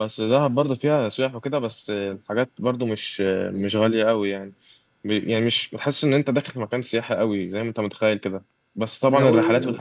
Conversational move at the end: listening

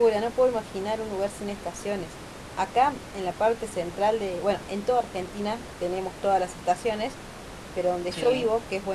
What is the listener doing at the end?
listening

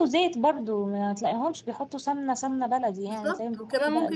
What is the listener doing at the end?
taking over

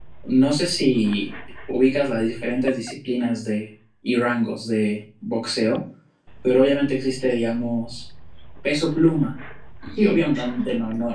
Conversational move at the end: listening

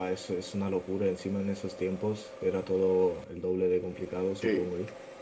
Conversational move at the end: taking over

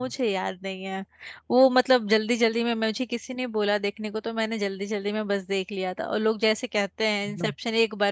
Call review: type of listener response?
listening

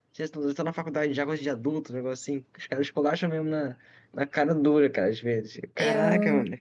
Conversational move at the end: taking over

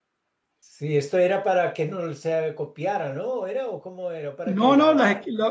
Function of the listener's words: taking over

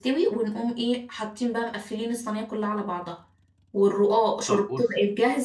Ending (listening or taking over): listening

